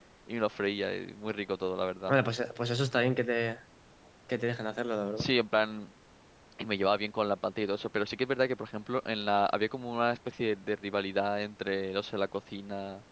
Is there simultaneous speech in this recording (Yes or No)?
No